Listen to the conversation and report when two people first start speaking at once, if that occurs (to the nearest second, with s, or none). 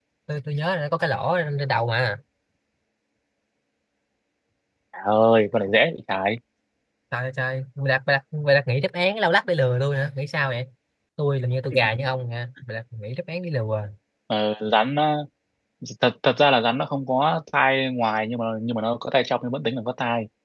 none